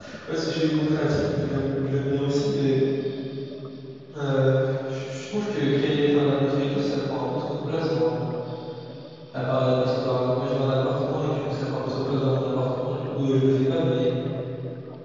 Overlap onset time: none

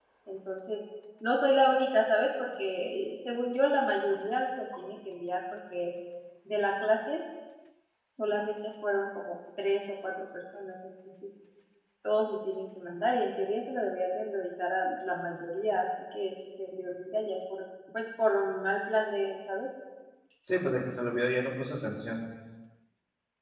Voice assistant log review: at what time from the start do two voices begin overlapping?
none

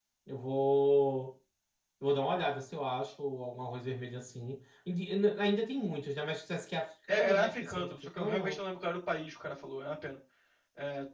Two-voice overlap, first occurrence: 7.1 s

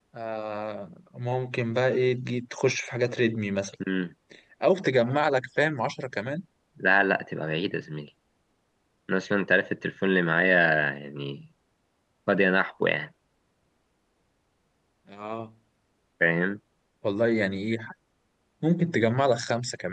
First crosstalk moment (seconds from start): none

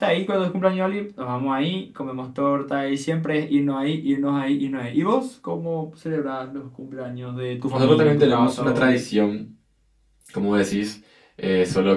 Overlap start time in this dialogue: 7.7 s

